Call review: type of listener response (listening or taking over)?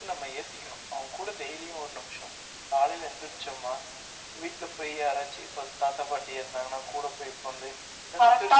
listening